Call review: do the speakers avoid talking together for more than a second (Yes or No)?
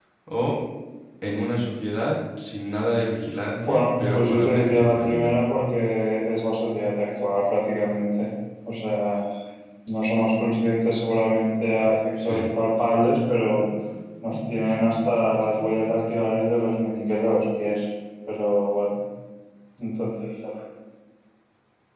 No